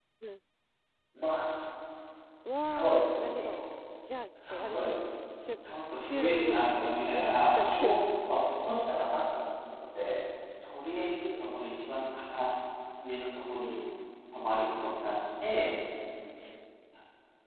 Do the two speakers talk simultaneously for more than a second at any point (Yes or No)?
Yes